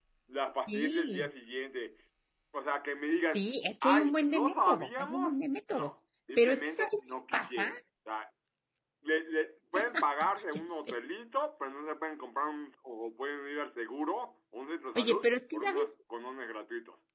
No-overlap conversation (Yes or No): No